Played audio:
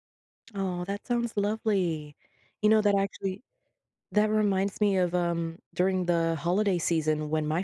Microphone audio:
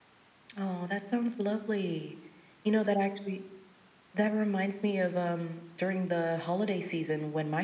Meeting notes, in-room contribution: none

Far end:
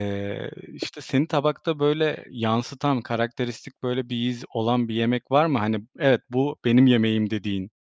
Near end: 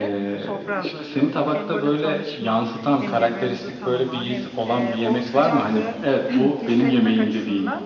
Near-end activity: present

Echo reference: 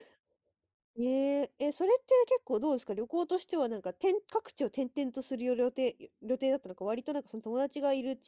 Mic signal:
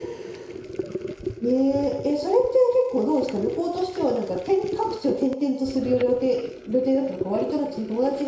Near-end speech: none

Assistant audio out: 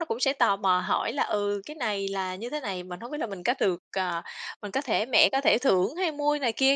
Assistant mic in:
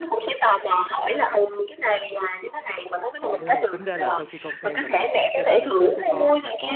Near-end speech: present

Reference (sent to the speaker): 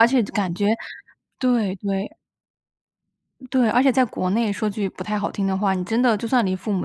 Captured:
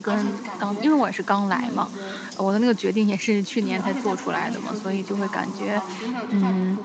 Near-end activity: present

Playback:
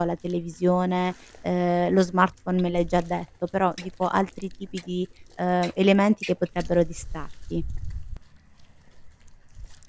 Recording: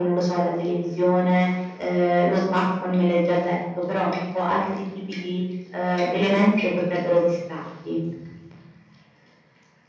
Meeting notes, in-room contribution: none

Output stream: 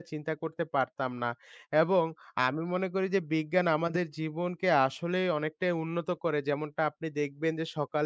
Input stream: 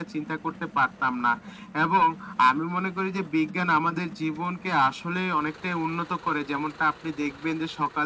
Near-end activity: none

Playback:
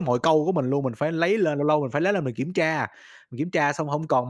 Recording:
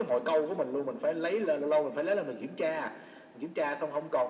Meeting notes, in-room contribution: none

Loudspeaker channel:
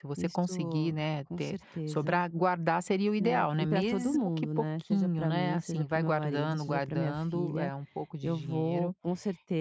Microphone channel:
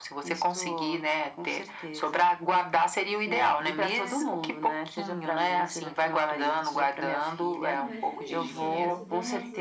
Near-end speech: present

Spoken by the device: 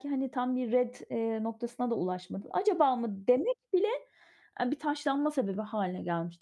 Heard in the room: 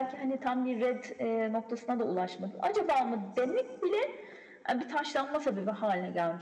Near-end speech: none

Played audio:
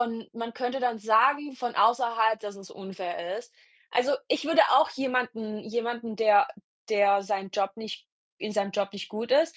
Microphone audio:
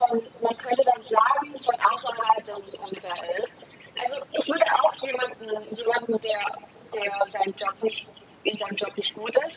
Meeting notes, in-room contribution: none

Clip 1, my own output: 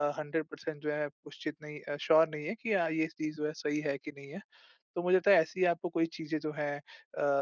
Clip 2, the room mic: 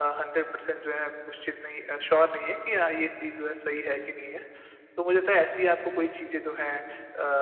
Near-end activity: none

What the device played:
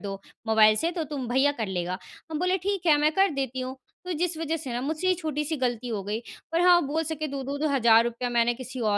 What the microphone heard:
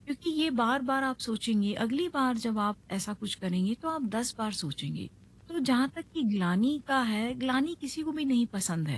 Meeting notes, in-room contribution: present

